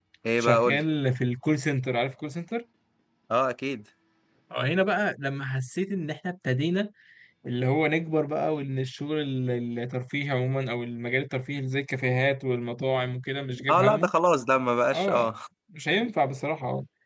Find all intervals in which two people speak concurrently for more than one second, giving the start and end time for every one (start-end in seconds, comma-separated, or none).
none